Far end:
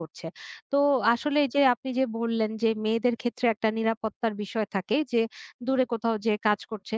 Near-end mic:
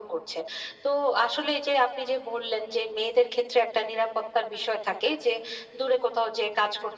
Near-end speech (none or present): none